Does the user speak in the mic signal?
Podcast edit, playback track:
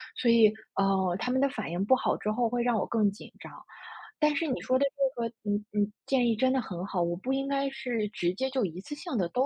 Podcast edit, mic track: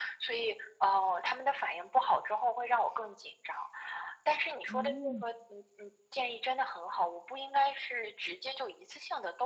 Yes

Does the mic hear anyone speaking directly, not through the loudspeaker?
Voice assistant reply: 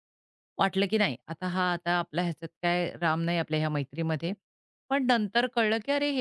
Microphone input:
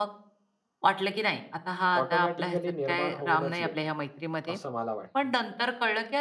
Yes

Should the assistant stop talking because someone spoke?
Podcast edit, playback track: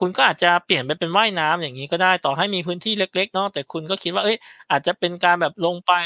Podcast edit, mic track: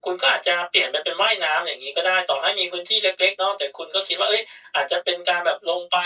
No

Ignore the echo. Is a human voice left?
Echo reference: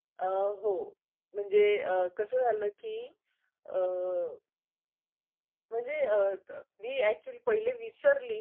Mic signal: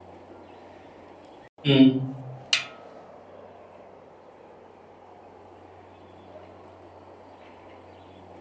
Yes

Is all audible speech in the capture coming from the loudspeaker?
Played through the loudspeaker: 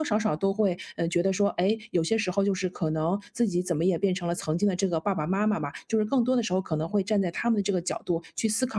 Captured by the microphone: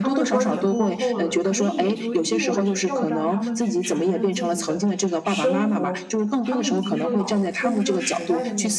No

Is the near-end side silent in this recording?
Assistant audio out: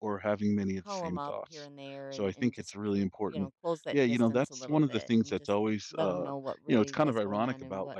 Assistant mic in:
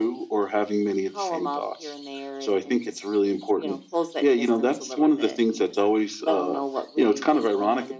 Yes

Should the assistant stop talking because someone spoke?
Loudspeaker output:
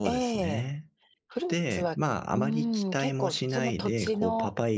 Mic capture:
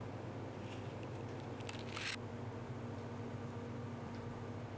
No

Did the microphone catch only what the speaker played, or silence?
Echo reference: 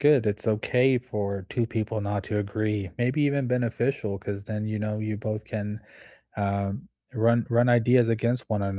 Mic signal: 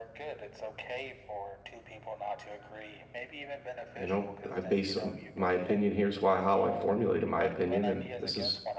No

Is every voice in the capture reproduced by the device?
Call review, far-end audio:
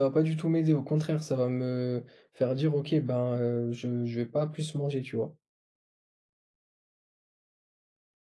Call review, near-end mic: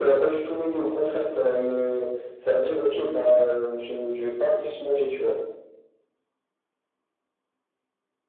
Yes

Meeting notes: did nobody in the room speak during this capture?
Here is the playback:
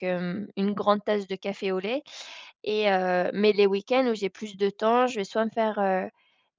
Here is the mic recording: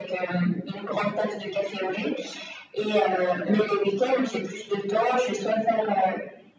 Yes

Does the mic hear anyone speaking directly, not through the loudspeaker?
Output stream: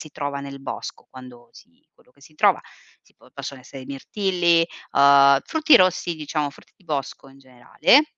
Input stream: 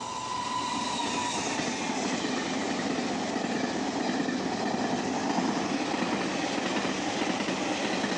No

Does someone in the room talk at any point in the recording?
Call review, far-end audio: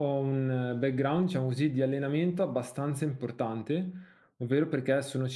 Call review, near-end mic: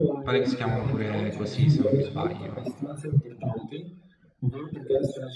Yes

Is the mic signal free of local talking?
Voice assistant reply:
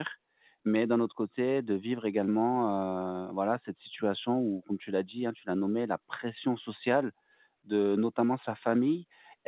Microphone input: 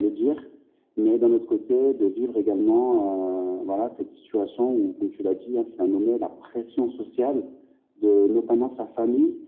Yes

